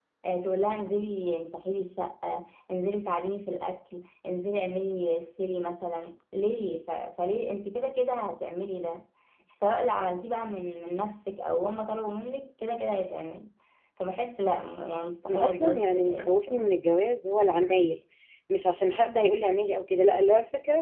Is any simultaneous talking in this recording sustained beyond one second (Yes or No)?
Yes